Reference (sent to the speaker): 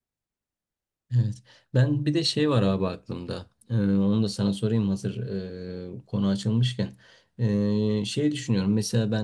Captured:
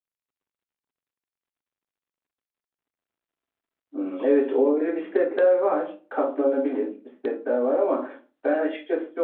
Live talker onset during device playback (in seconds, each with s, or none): 3.9 s